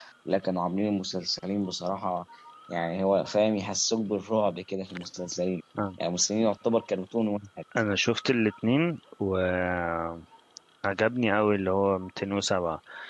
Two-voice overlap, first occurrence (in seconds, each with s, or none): none